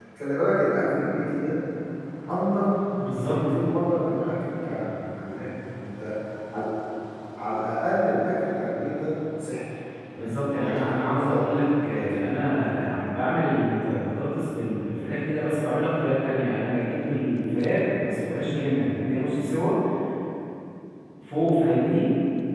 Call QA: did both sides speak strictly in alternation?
No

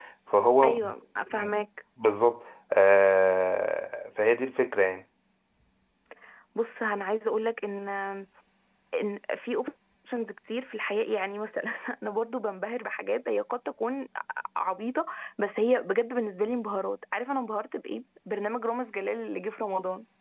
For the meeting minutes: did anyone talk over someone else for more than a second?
No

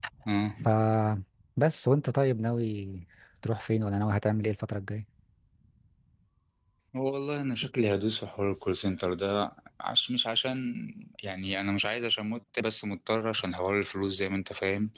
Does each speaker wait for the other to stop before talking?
Yes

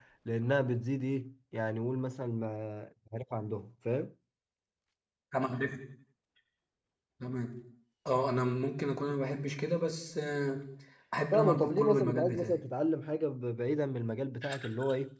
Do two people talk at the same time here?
Yes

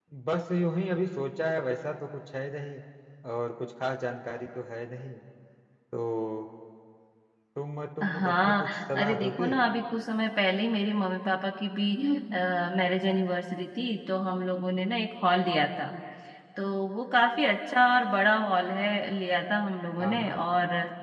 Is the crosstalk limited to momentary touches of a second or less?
No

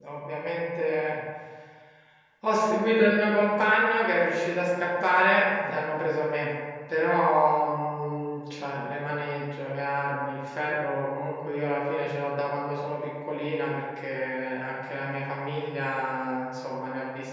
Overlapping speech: No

